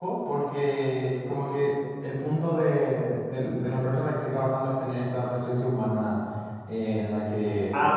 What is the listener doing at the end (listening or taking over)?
taking over